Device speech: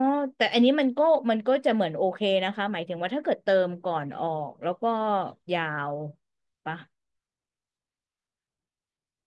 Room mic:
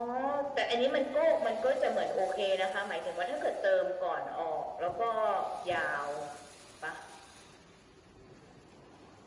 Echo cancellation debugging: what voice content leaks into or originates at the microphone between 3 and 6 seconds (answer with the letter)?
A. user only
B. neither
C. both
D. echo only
D